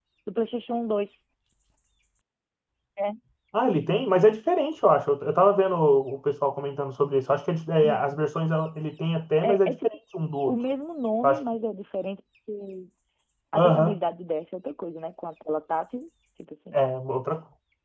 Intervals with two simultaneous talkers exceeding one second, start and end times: none

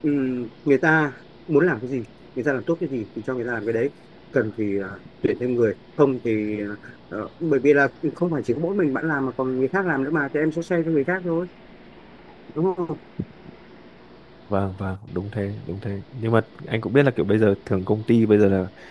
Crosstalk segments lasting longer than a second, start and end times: none

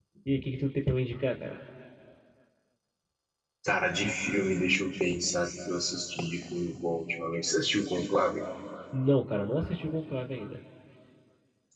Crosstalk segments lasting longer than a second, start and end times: none

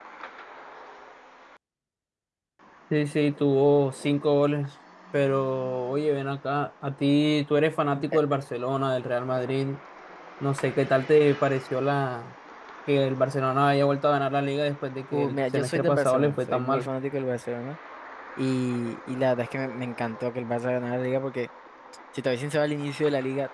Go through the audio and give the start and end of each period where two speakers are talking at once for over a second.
15.1-16.9

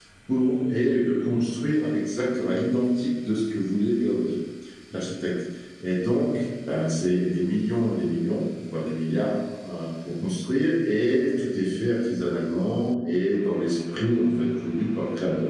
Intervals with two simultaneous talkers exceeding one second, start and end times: none

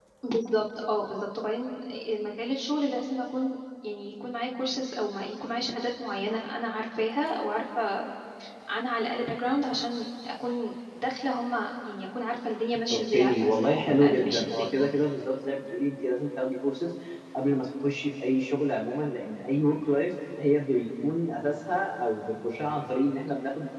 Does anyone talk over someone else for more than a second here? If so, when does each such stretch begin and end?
12.9-14.7

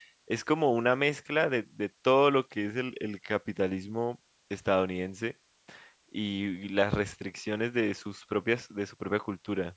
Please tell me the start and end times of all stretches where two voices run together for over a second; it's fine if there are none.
none

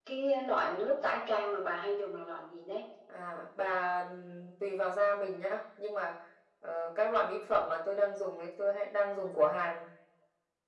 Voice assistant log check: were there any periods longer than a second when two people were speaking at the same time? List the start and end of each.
none

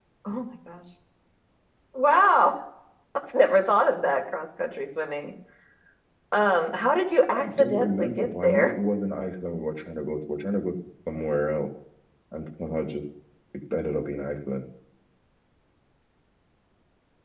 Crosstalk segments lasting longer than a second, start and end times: 7.3-8.7

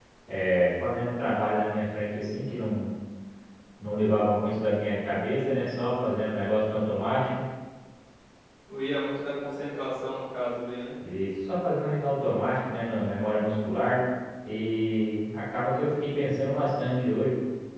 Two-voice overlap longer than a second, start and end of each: none

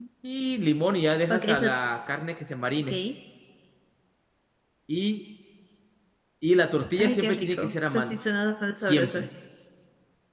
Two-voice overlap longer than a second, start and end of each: 7.0-8.2

